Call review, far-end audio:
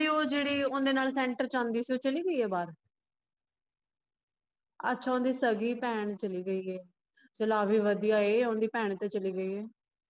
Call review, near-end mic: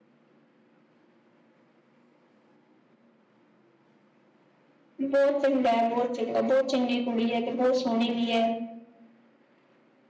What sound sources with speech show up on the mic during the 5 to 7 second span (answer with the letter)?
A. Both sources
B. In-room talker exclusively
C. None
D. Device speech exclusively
B